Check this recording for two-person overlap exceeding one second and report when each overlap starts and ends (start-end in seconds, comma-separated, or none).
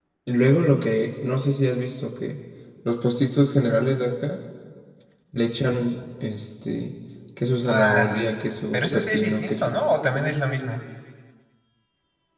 7.7-9.7